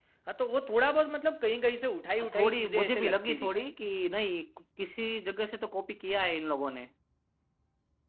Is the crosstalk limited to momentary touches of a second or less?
No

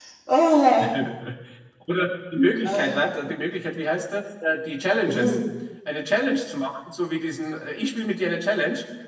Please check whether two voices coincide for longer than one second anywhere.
No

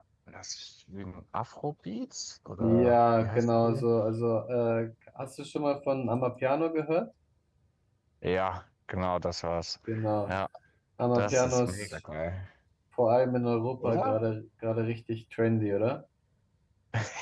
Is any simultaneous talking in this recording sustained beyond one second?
Yes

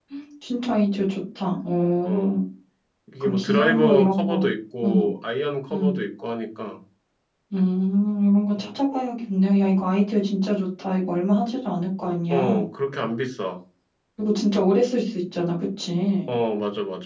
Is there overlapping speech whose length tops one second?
Yes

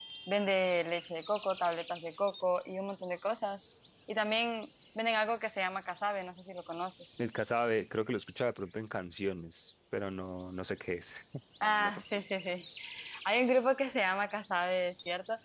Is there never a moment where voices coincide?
Yes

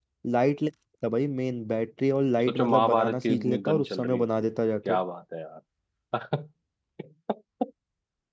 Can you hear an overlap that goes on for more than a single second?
Yes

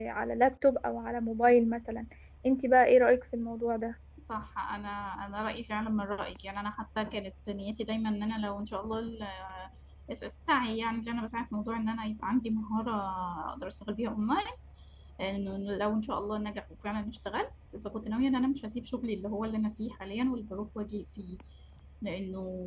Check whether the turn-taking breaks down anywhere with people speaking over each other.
No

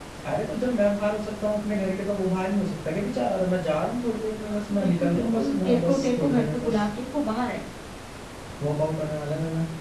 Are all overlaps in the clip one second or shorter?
No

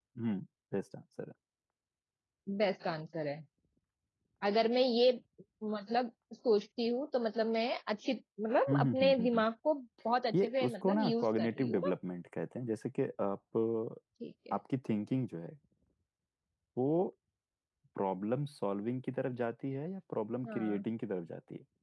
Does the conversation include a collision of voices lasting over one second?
Yes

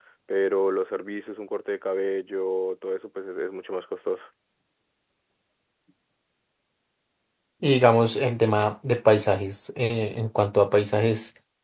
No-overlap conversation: Yes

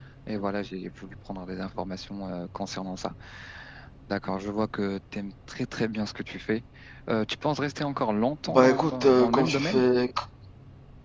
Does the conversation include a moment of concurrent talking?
Yes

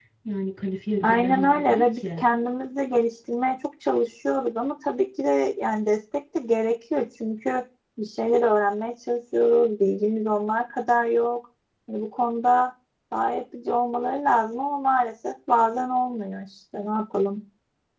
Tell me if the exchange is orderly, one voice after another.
No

